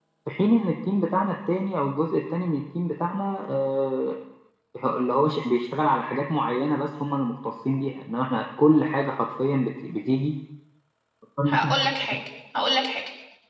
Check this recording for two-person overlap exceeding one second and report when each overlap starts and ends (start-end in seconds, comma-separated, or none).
none